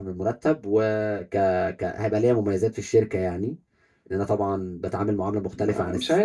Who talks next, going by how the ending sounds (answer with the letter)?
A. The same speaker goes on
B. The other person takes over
B